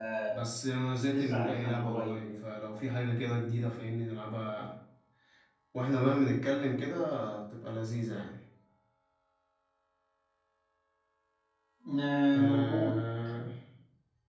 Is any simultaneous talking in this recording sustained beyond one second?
Yes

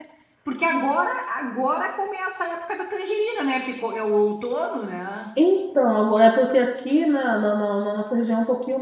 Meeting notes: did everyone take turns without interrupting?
Yes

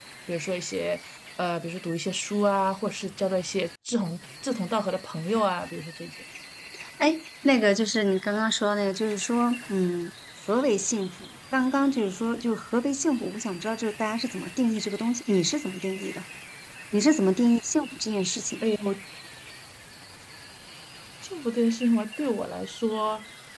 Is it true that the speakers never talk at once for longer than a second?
Yes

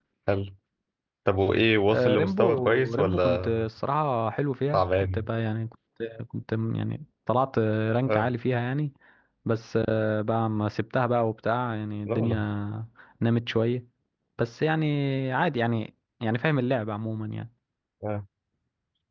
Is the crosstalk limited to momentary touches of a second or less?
No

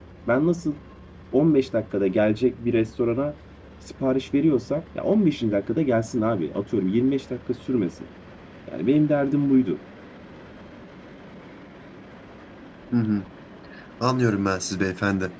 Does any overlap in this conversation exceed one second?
No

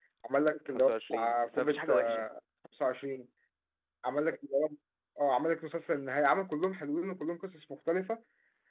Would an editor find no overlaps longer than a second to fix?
No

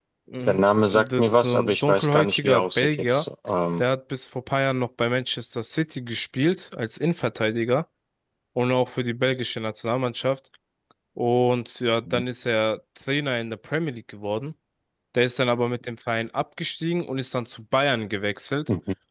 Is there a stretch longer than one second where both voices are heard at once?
Yes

